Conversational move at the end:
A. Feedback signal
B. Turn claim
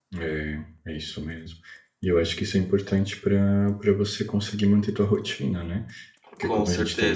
A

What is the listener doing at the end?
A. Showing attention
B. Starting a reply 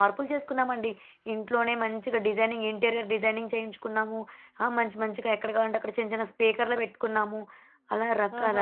B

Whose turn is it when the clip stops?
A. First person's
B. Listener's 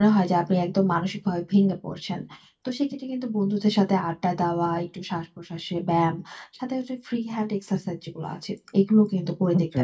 A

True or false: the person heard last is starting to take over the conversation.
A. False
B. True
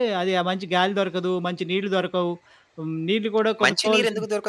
B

